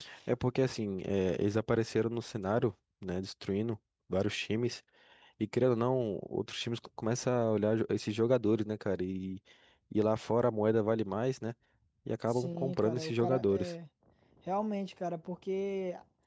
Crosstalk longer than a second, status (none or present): present